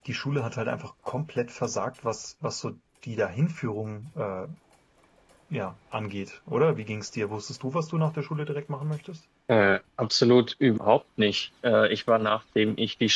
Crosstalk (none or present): none